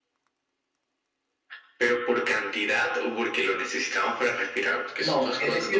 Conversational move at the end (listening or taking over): taking over